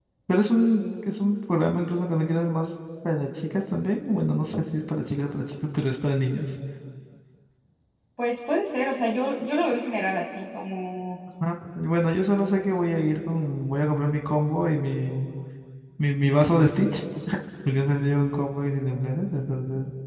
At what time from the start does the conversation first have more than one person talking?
none

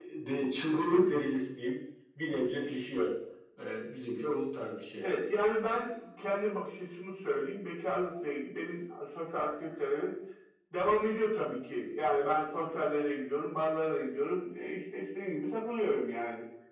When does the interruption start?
none

